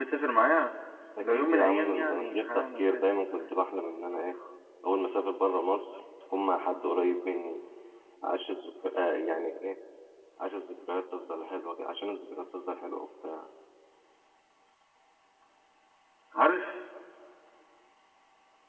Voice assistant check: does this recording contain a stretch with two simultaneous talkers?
Yes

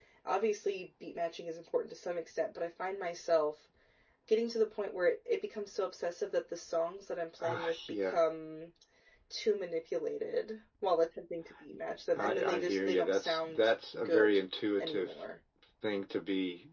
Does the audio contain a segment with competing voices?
Yes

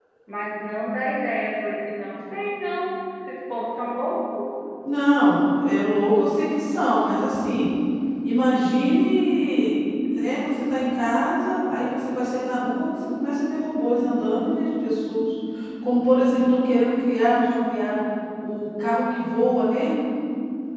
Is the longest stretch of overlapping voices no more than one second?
Yes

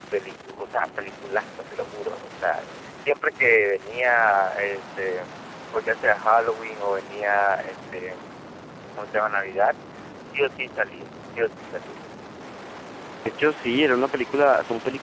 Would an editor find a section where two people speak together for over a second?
No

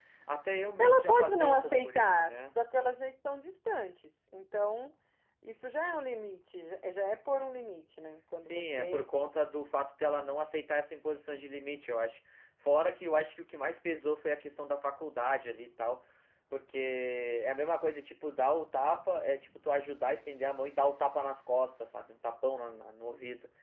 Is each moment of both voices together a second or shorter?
No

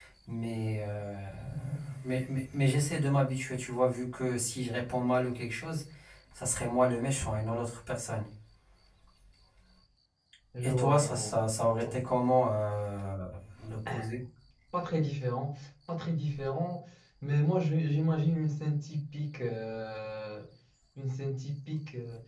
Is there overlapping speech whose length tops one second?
Yes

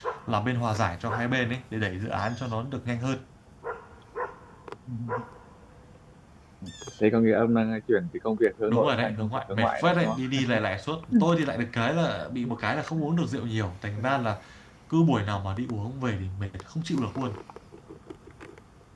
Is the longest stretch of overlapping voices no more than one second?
No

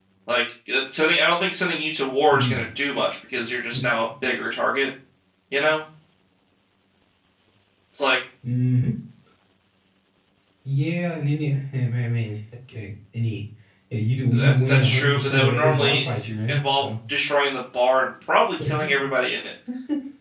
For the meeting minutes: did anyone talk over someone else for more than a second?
Yes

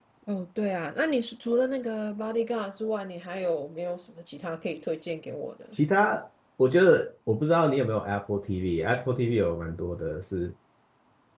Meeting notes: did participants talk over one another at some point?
No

